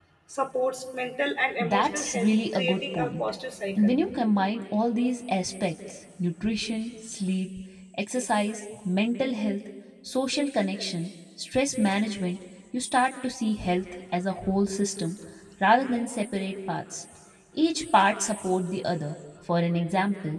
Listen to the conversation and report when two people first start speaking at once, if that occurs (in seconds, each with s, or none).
1.6 s